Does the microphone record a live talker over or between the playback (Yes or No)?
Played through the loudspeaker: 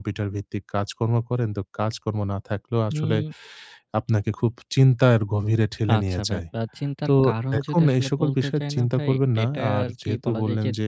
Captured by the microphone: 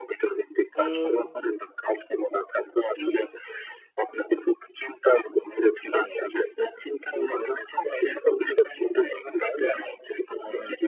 Yes